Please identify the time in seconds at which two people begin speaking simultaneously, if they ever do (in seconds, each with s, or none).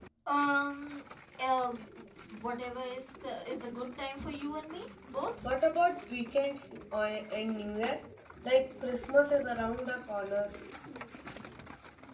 none